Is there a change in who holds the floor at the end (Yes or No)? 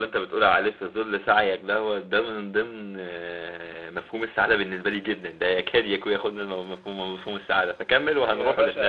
Yes